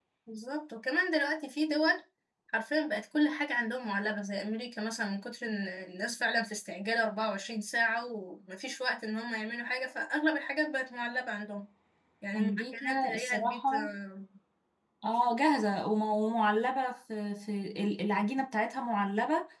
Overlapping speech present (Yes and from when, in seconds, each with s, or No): Yes, from 12.4 s